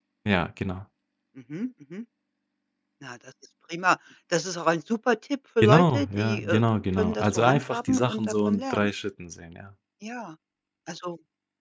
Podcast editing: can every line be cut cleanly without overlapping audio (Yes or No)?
No